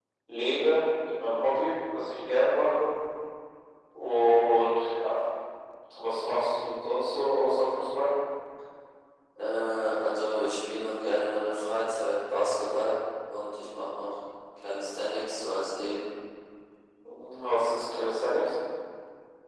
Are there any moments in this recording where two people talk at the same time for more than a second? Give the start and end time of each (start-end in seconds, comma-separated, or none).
none